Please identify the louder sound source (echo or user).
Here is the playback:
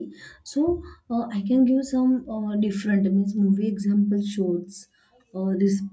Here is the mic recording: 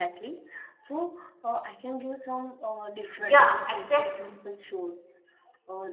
user